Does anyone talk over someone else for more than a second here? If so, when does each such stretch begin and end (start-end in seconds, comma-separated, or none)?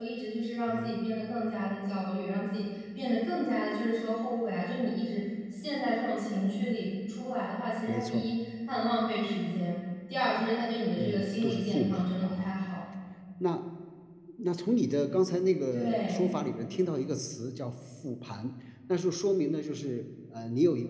11.0-12.5